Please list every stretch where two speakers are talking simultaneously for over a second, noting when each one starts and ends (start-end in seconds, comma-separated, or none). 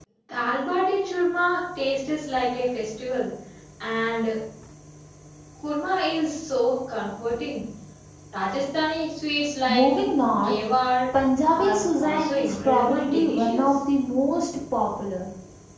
11.5-13.8